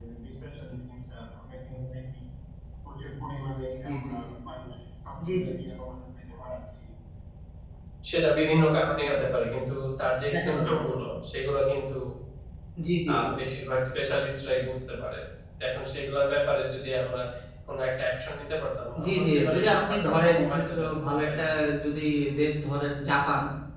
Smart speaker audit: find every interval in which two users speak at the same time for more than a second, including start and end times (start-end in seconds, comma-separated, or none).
19.0-21.4